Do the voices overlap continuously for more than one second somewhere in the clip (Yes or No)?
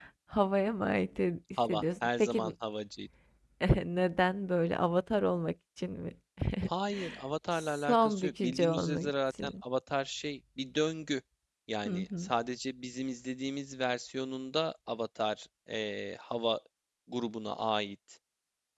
Yes